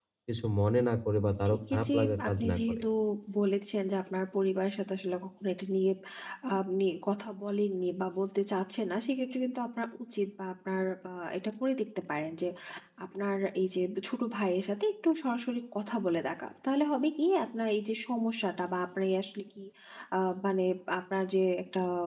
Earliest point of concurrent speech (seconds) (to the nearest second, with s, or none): 1 s